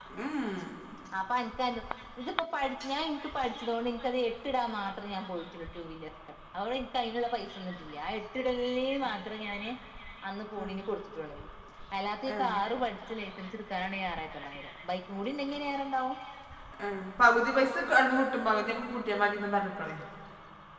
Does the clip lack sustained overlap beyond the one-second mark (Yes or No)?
Yes